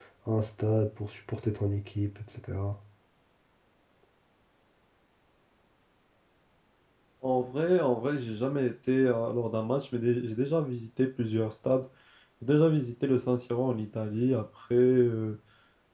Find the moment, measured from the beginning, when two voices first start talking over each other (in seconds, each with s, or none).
none